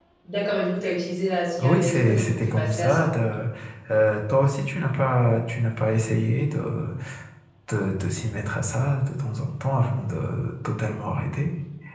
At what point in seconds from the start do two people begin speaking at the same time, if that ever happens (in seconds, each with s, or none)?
1.6 s